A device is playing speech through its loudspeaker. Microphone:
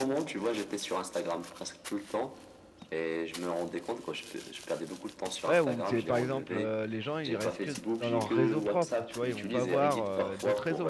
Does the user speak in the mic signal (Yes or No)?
Yes